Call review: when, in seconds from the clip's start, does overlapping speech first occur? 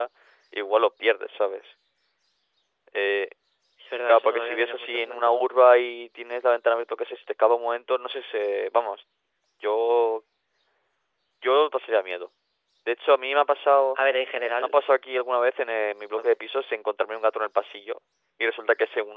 4.1 s

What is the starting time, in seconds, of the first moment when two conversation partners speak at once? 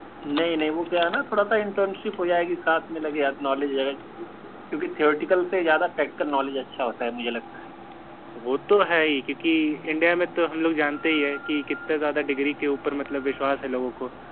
none

